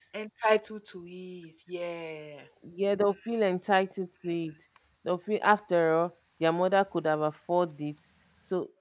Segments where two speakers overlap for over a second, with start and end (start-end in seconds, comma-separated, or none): none